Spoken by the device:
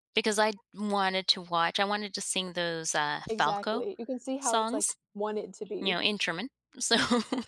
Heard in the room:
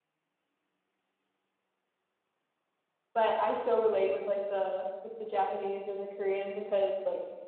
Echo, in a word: none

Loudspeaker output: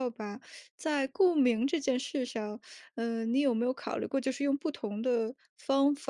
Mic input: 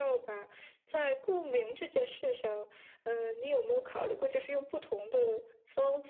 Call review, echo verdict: present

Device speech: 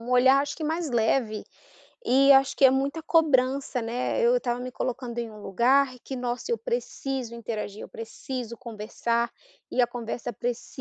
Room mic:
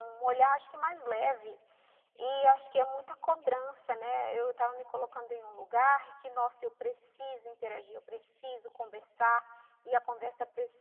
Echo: present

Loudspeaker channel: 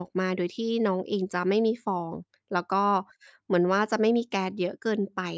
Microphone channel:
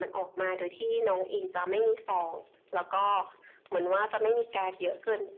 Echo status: present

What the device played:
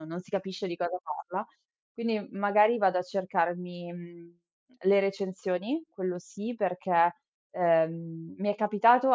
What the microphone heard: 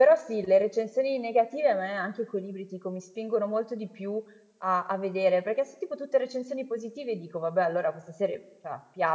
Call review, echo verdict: none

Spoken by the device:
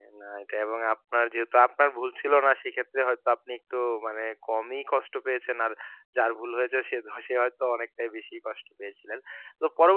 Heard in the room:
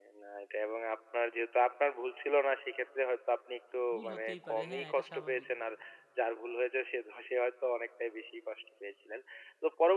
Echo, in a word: present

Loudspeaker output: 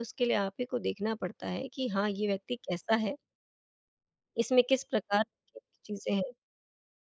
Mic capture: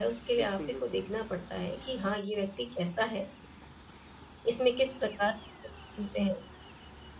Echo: present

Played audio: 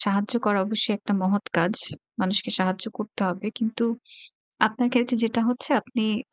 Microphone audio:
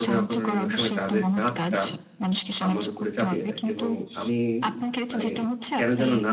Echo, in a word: present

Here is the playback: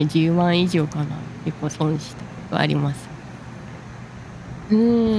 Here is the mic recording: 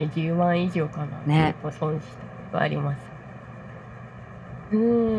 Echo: present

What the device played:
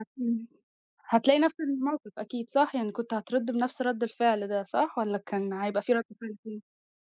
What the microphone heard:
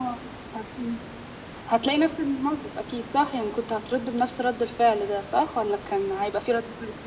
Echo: present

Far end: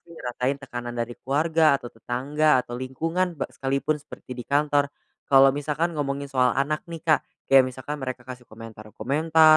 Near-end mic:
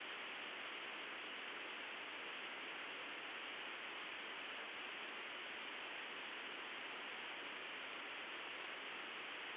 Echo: none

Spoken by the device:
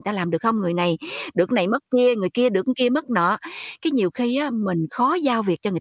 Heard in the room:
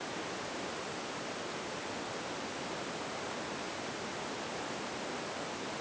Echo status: none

